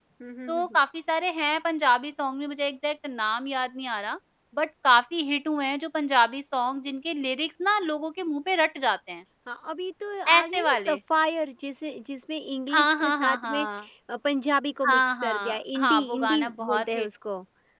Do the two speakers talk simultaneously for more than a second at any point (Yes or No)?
Yes